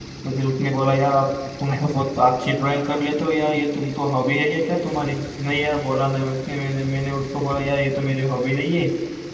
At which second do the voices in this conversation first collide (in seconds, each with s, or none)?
none